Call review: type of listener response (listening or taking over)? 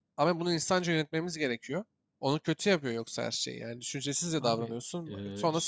taking over